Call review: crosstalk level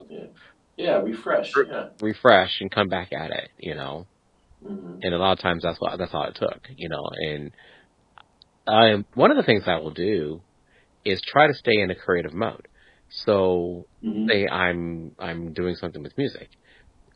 none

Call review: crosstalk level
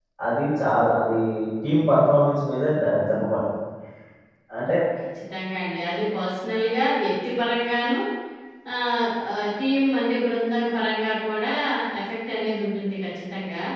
none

